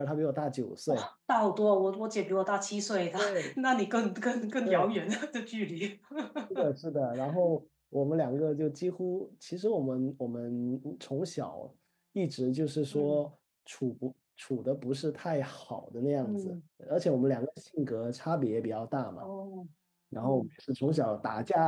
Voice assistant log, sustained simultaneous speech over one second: none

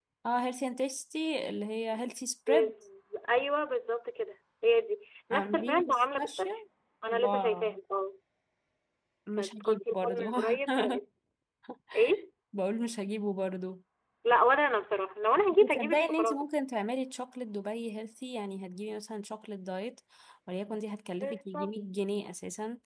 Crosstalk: present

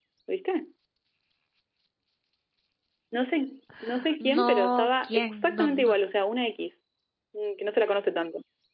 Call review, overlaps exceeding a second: present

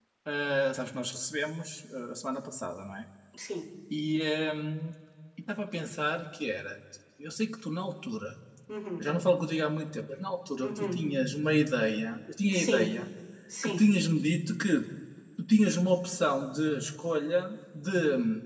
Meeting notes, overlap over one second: none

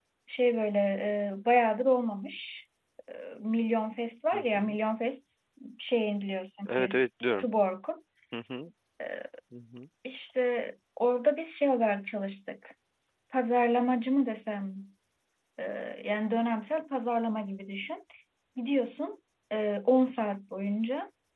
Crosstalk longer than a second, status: none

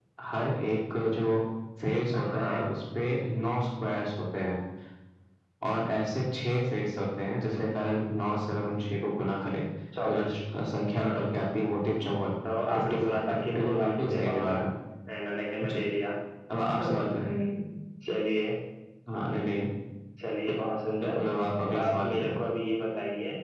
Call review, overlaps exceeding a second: present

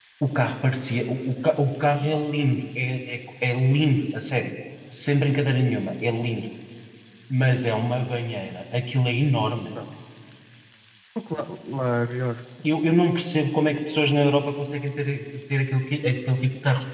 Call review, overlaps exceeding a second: none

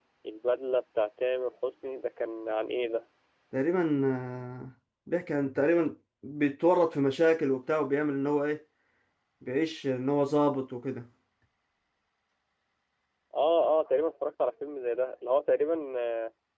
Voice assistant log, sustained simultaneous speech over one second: none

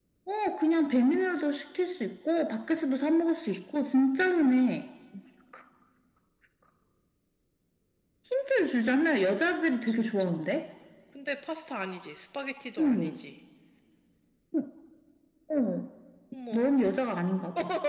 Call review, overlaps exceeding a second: none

